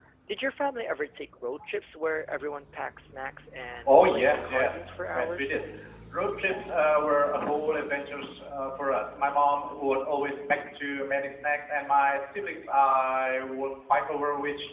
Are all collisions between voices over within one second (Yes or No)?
No